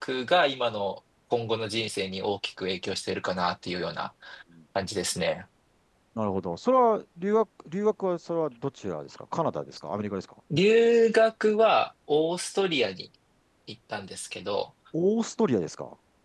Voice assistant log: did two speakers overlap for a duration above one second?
No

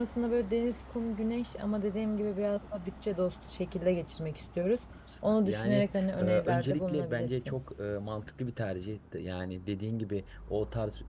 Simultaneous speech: Yes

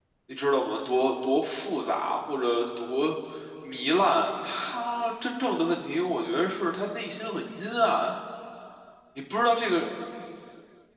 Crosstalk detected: No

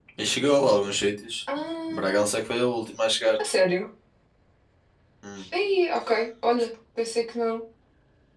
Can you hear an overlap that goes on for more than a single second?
No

